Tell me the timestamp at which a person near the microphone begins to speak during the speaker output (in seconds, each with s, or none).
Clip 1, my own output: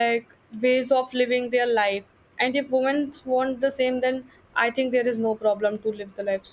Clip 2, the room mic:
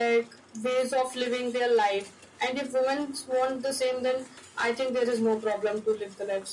none